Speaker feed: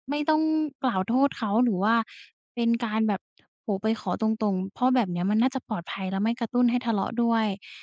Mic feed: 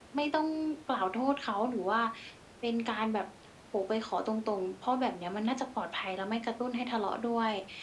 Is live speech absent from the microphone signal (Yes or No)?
Yes